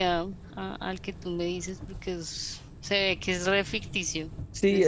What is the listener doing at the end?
taking over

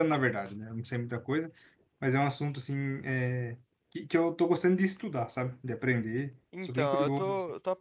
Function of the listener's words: taking over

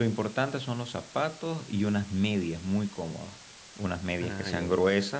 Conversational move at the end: listening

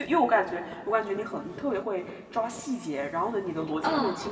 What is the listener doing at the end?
listening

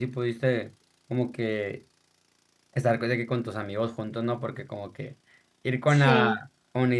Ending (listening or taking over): listening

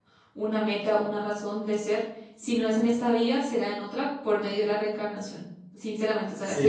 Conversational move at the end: listening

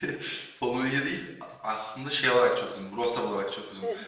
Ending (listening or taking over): listening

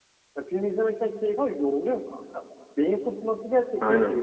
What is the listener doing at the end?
taking over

